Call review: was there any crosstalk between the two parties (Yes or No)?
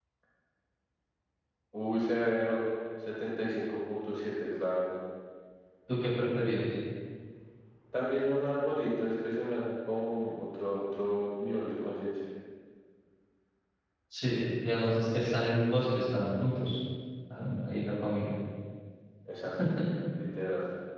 No